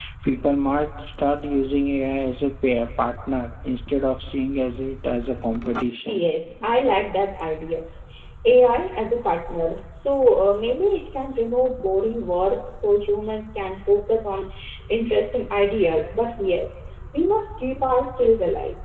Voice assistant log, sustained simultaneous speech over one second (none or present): none